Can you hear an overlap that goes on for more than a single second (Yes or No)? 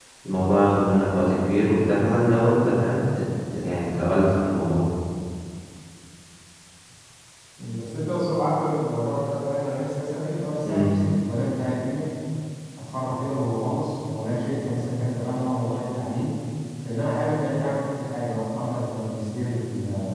No